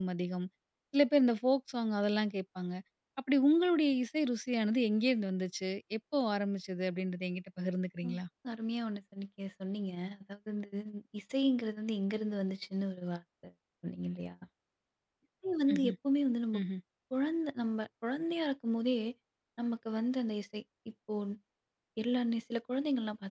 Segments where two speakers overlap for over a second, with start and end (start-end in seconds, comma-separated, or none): none